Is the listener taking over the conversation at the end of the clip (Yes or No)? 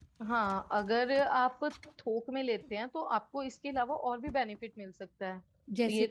No